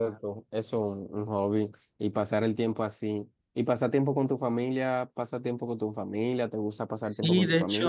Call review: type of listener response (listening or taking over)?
taking over